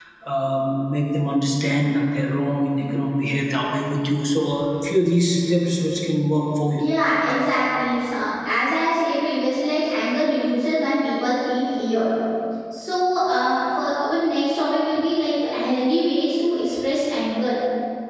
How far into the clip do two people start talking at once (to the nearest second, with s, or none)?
none